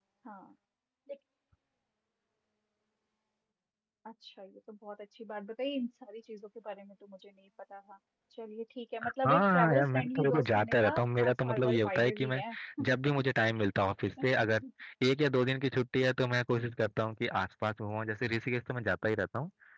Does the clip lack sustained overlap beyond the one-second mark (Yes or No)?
No